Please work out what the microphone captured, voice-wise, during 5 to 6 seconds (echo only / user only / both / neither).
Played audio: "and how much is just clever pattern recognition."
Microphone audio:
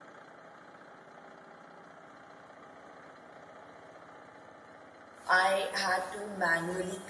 user only